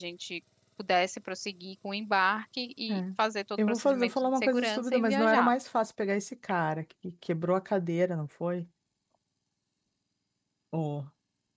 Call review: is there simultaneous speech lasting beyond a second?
Yes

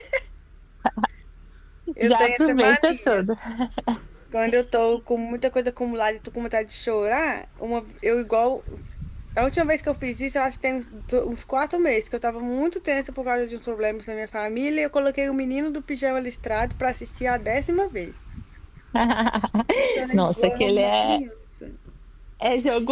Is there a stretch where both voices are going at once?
Yes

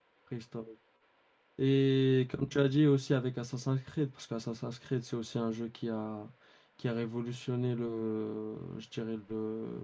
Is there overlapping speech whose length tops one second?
No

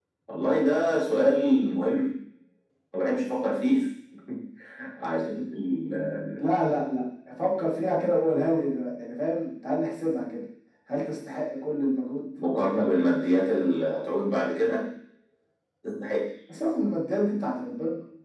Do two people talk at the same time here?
No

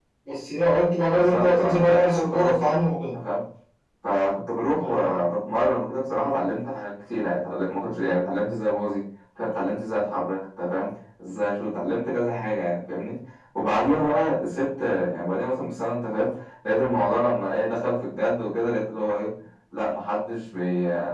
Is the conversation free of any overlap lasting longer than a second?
No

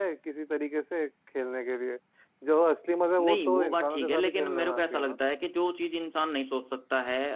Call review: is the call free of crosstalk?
No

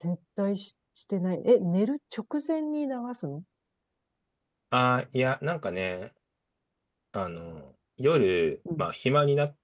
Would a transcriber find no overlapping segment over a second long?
Yes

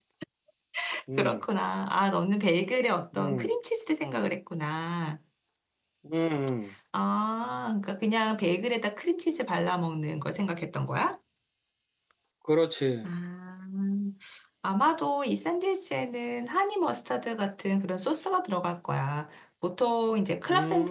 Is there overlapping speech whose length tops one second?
No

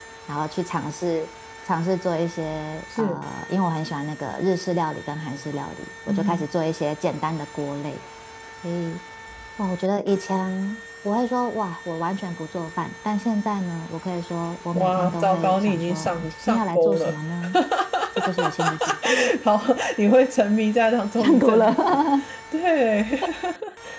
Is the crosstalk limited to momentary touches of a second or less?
No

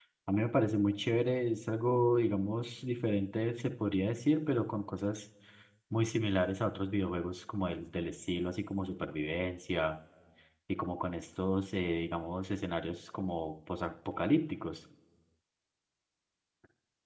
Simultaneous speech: No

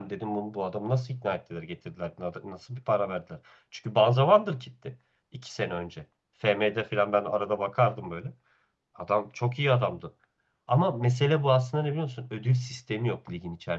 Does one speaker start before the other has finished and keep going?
No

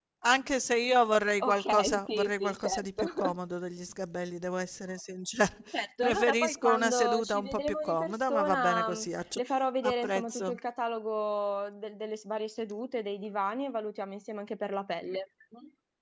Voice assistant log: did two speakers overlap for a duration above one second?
Yes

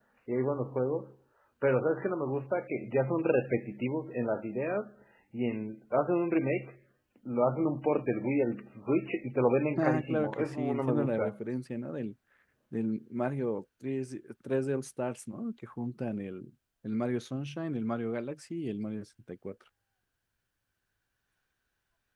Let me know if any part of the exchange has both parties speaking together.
Yes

